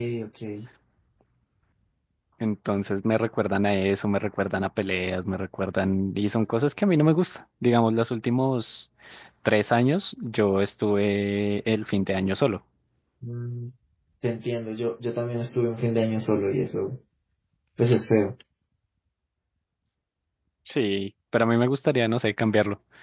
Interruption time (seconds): none

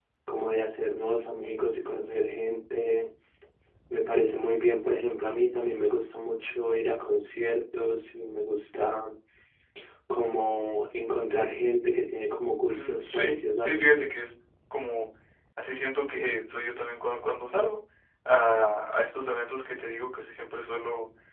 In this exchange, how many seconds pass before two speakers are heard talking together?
12.7 s

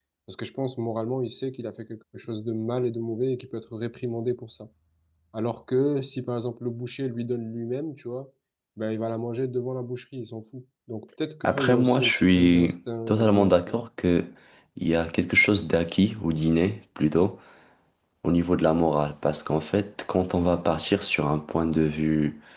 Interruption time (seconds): 11.4 s

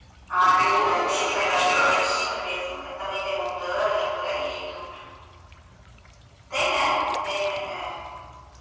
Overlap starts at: 0.6 s

